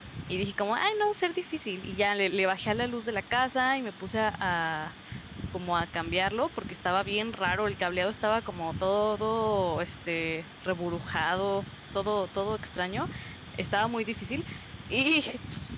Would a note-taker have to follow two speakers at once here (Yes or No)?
No